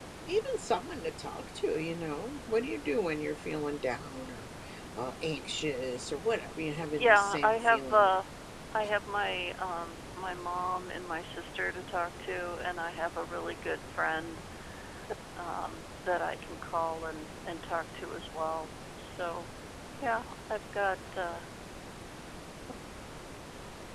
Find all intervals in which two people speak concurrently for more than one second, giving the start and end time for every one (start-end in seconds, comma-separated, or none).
6.8-8.1